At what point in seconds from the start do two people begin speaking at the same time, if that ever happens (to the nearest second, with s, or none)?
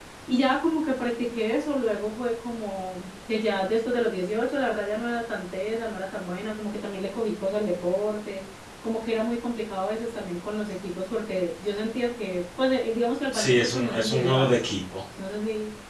13 s